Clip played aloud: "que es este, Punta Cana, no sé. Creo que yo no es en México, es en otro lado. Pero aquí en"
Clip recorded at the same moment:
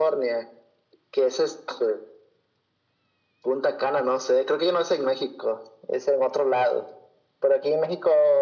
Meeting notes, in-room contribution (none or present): none